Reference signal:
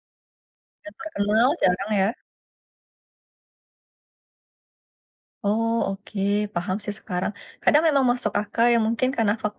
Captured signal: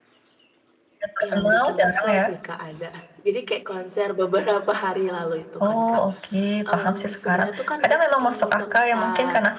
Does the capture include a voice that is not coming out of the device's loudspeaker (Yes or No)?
Yes